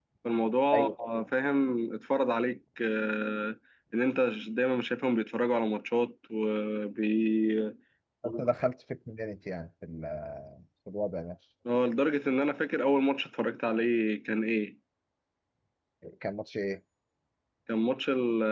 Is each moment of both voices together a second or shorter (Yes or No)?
Yes